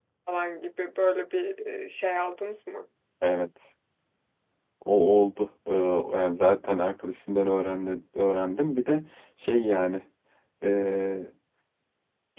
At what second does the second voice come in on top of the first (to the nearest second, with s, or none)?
none